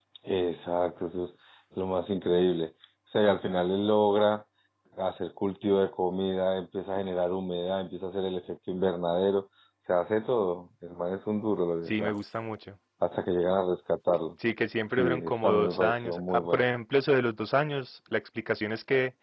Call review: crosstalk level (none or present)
present